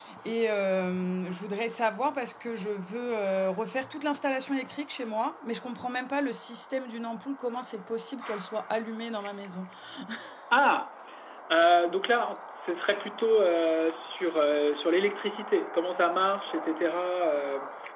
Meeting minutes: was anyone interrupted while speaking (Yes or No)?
No